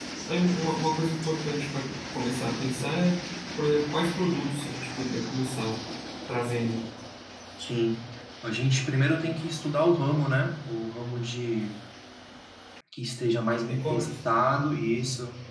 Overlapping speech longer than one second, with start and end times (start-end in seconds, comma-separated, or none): none